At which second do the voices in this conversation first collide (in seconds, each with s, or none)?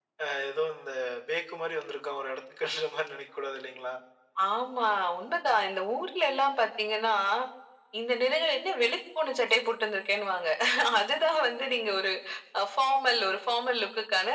none